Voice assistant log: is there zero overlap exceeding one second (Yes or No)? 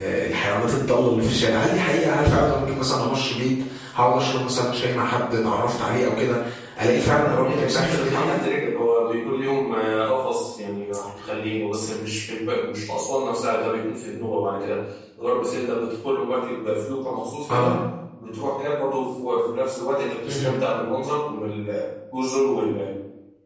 No